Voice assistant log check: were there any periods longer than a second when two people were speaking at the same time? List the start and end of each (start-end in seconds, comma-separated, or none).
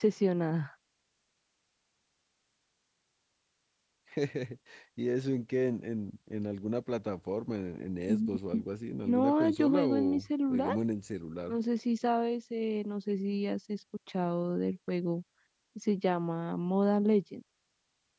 9.0-10.7